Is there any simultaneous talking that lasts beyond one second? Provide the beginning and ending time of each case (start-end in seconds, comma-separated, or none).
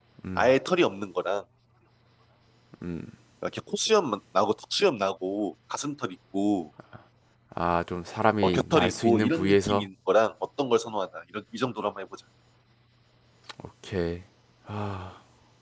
8.4-9.9